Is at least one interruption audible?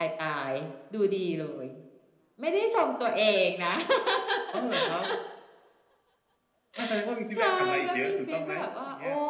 Yes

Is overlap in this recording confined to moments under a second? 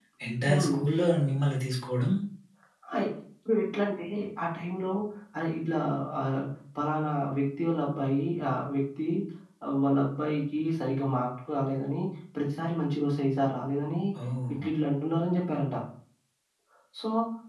Yes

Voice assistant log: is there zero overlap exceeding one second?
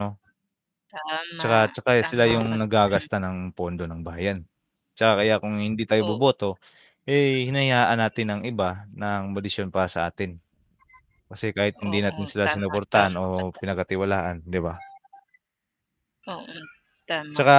No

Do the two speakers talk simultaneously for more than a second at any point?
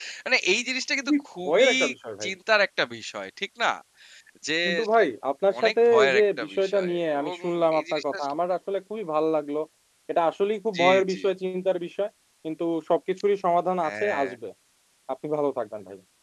Yes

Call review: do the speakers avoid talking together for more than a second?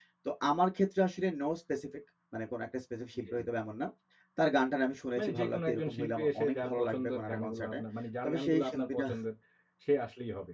No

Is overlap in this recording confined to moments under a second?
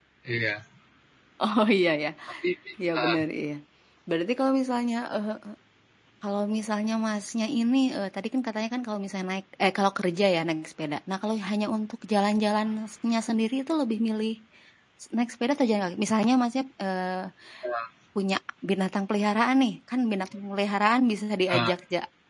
Yes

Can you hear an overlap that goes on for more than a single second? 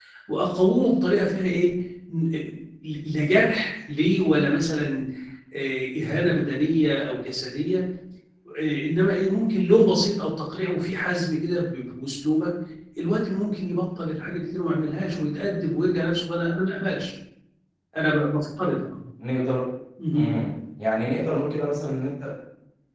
No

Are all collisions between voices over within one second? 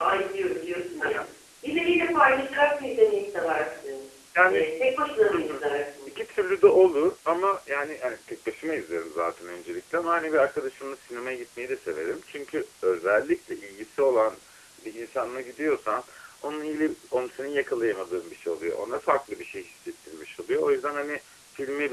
Yes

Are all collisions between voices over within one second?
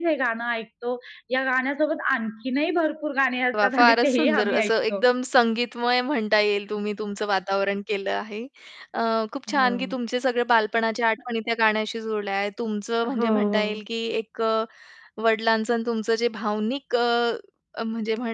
No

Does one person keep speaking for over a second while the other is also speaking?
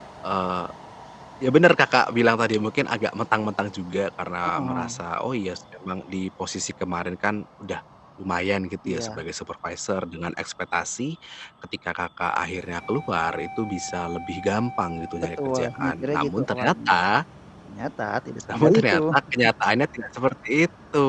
Yes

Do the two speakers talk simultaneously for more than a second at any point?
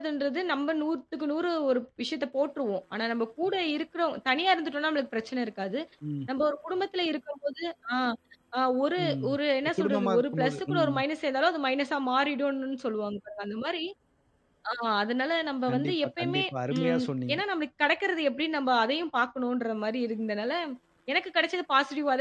Yes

